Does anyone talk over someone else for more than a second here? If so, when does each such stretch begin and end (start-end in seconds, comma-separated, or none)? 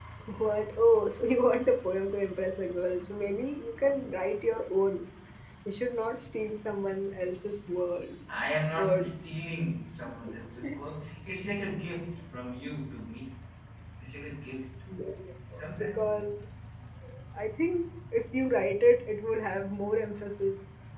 none